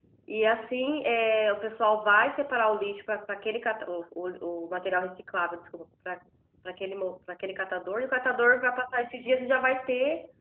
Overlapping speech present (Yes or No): No